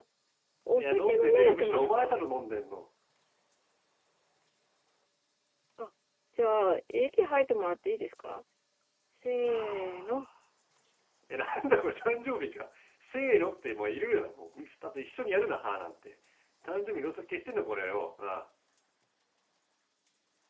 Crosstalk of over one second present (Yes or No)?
Yes